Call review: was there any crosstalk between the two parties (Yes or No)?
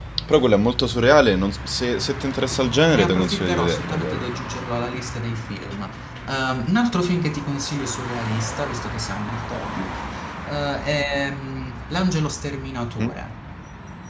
Yes